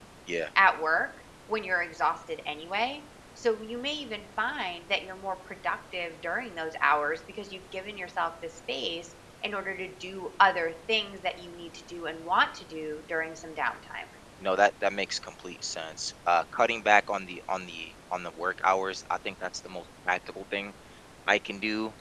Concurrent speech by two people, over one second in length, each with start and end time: none

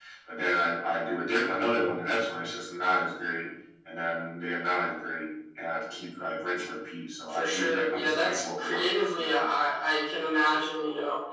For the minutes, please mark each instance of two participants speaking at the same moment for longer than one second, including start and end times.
7.3-9.5

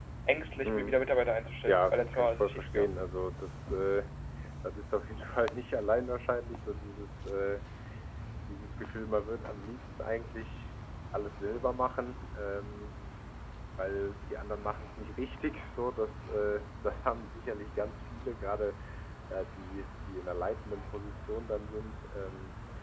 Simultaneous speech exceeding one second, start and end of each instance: 1.6-2.9

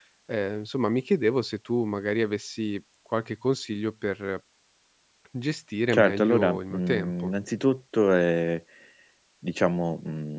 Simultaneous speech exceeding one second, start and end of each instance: 5.9-7.3

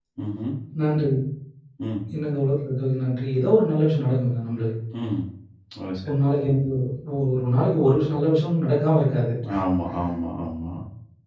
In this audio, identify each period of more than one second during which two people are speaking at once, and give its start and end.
none

